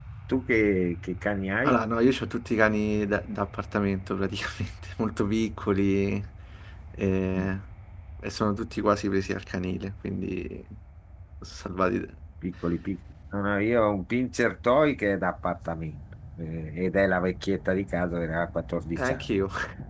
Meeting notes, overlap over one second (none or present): none